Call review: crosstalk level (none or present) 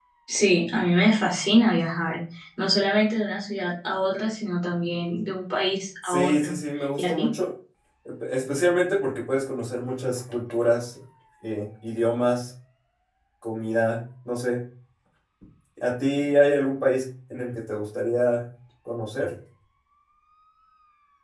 present